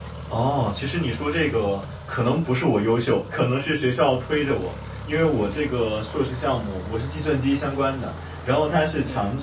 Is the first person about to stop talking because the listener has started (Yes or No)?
No